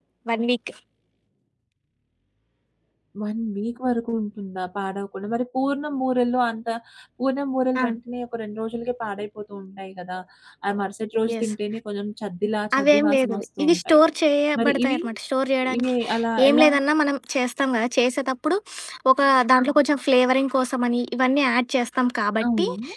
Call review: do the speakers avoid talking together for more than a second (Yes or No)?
No